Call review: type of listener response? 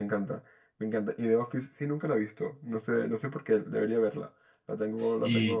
taking over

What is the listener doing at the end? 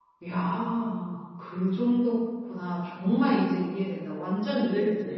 taking over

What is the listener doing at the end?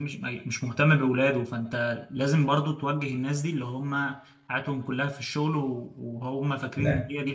listening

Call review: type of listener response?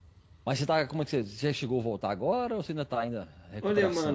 taking over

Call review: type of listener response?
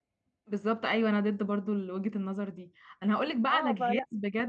listening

